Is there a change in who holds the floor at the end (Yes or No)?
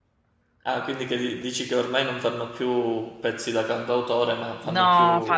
Yes